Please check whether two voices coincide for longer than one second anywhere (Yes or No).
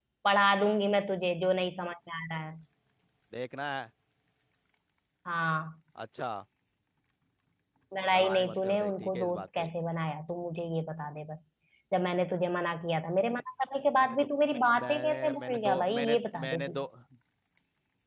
Yes